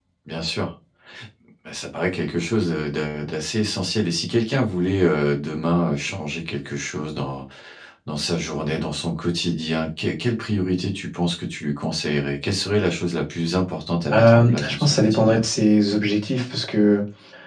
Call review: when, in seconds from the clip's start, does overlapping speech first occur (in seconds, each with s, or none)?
14.1 s